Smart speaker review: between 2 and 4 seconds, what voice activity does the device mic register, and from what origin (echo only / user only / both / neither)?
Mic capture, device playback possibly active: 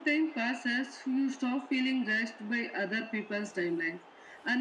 echo only